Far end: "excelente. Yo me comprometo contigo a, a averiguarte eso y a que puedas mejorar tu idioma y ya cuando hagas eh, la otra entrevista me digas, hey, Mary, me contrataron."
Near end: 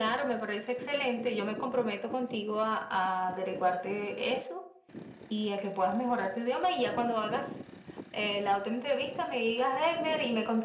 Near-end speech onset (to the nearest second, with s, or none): none